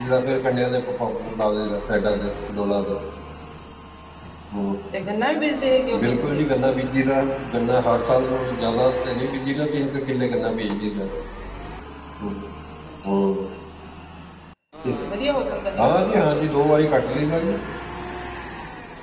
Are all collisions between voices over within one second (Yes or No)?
Yes